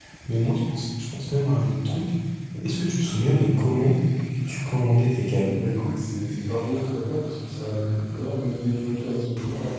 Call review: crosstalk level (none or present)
none